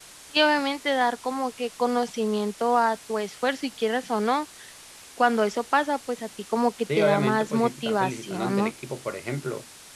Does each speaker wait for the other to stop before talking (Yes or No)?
No